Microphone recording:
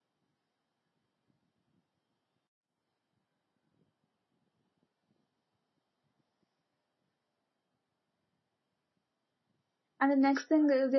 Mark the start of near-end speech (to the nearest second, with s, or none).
10 s